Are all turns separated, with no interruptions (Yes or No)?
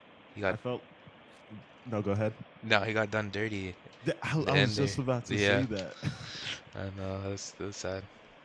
No